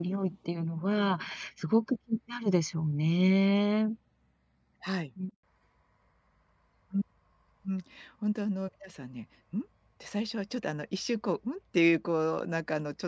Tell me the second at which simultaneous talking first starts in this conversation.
none

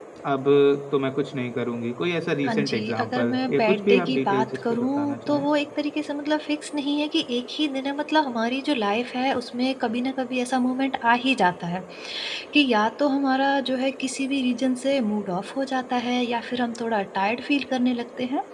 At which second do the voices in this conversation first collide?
2.5 s

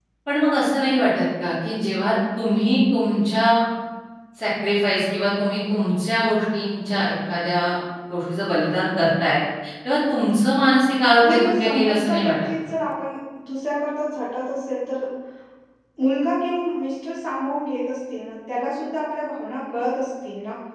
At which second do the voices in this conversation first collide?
11.2 s

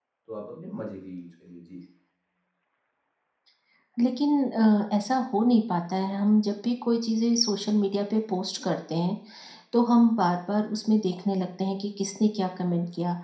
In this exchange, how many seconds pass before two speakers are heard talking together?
none

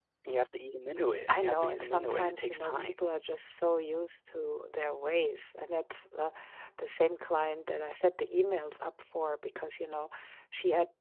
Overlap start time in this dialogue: 1.3 s

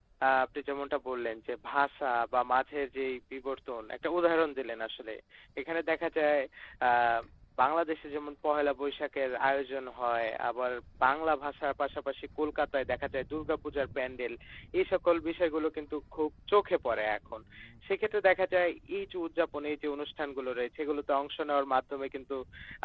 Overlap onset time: none

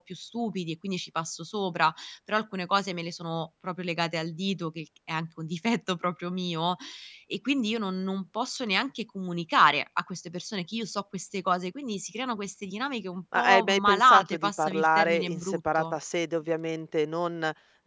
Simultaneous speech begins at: 13.3 s

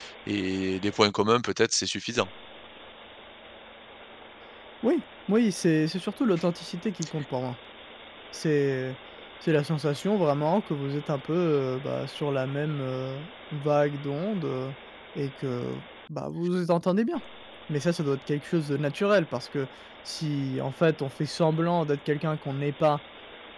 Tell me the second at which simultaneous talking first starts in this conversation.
none

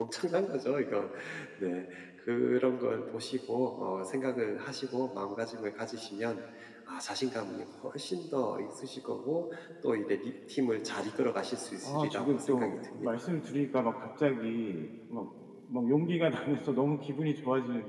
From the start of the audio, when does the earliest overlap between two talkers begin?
11.8 s

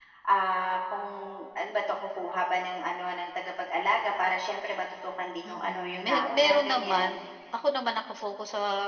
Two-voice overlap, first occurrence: 5.4 s

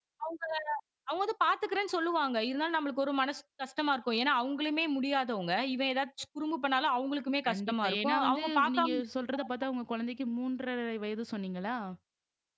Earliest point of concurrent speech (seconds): 7.4 s

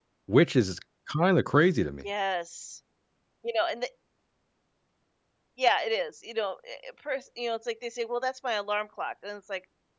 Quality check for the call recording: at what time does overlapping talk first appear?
none

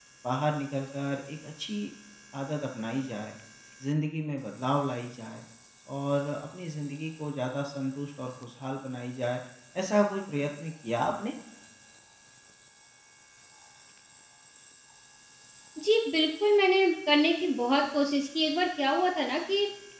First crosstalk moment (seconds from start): none

